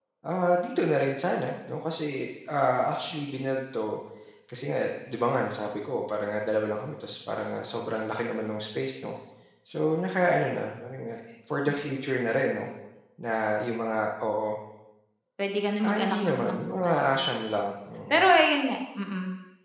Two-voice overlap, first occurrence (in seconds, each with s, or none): 15.9 s